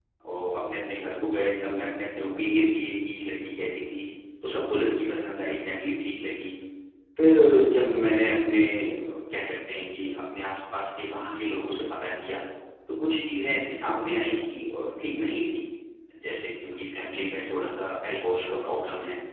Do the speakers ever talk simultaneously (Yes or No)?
No